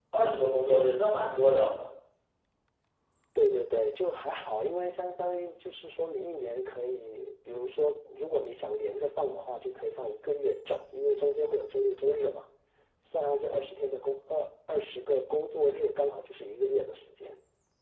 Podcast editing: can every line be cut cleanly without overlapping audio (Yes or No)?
Yes